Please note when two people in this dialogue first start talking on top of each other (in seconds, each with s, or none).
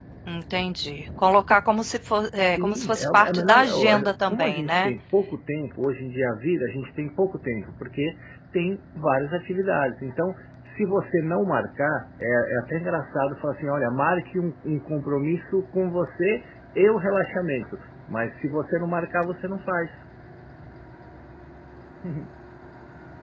2.4 s